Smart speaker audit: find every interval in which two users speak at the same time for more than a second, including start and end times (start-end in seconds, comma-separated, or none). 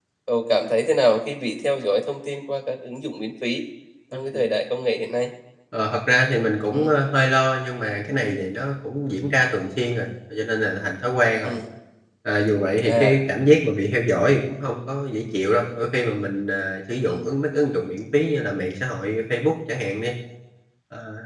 none